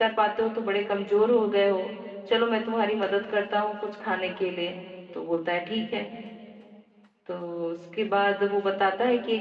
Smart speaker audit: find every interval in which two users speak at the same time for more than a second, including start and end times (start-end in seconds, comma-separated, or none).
none